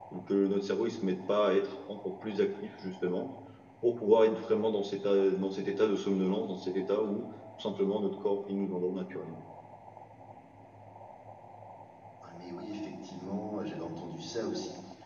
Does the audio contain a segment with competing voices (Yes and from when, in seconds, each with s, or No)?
No